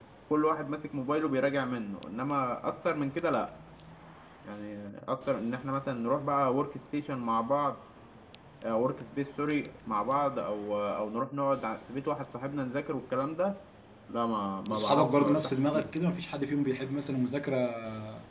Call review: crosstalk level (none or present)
present